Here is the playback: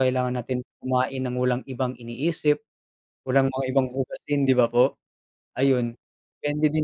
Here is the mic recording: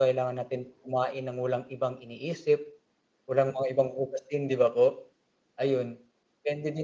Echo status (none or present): present